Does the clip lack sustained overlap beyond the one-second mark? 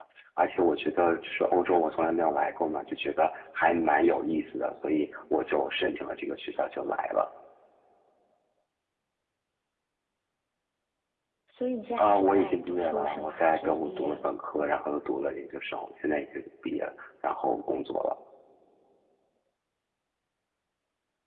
No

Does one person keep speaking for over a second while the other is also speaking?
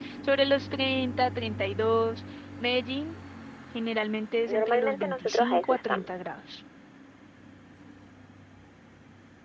Yes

